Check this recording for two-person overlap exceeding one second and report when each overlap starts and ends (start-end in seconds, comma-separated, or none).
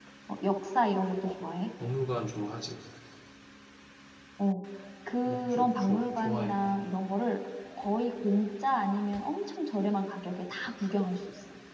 5.2-6.6